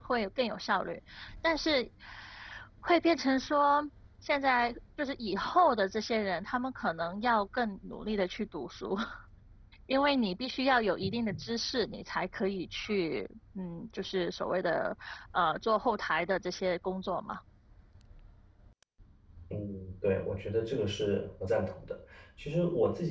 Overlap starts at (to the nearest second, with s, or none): none